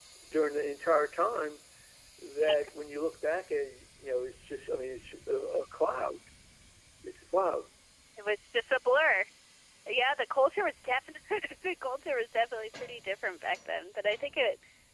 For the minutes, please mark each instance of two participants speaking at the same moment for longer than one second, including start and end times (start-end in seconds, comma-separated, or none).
none